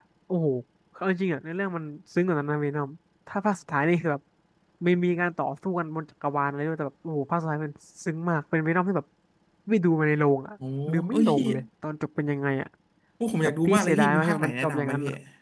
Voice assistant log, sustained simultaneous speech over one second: present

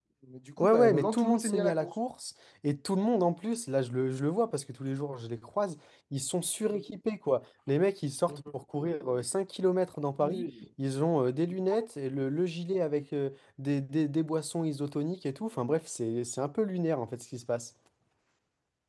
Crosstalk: present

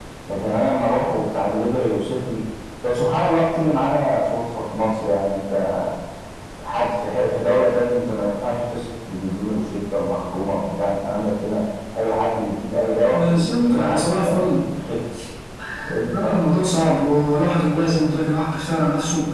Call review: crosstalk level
present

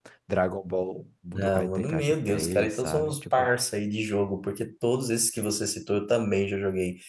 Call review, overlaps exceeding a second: present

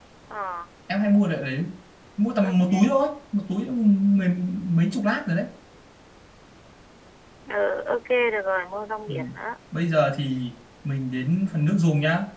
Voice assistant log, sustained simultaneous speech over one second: none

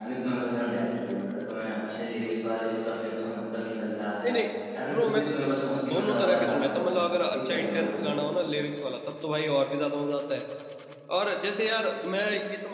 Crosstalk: present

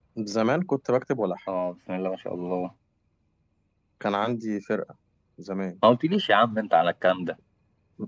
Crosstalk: none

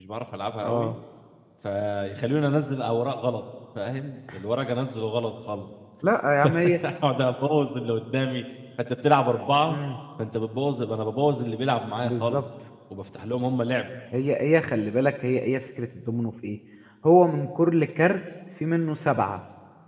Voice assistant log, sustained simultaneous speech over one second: none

